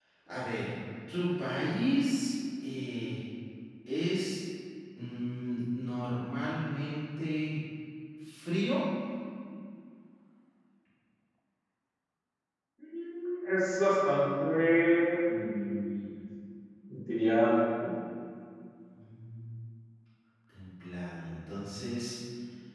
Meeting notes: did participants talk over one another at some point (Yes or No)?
No